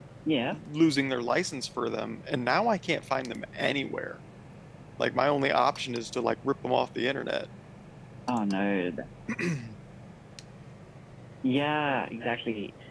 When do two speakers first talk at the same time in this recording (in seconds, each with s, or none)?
none